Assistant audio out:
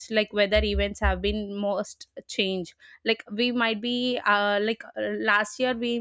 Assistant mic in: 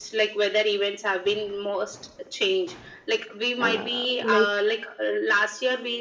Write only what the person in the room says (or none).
uh, like